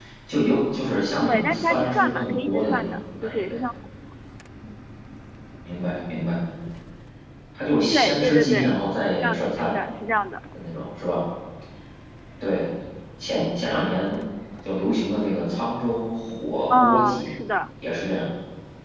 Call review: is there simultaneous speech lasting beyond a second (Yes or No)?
Yes